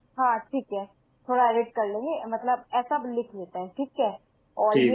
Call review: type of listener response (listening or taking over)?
listening